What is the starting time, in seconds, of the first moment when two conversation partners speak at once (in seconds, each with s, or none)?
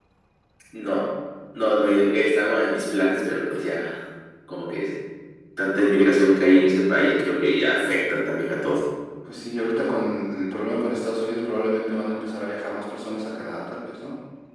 none